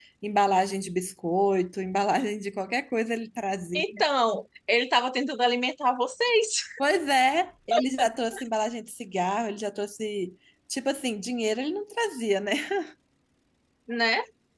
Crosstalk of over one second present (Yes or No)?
No